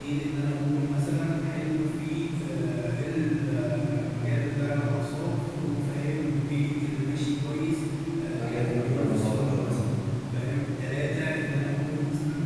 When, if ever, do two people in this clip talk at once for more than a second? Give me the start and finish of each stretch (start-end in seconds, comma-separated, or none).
8.4-9.8